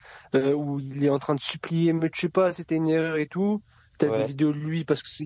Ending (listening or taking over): listening